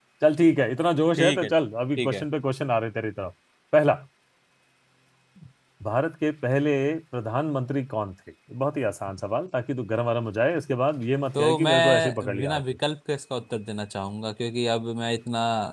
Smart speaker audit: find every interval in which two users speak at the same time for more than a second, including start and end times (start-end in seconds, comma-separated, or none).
11.3-12.6